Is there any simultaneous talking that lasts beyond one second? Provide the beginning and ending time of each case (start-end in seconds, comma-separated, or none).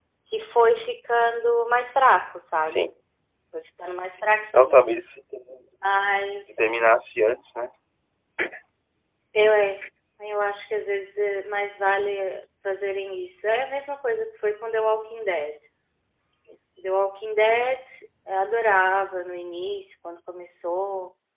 none